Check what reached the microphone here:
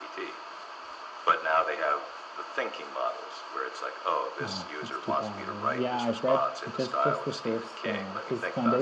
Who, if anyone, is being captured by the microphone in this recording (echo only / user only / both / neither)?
both